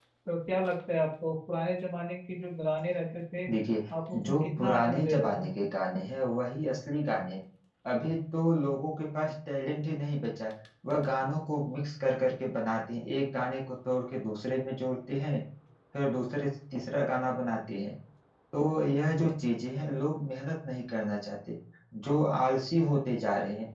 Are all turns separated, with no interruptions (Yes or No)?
No